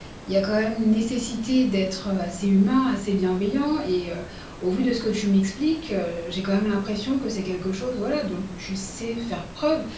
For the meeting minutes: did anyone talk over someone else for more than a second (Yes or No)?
No